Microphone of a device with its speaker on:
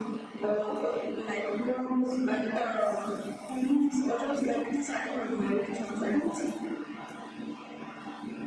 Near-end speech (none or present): none